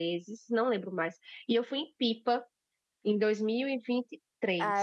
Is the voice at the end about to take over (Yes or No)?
Yes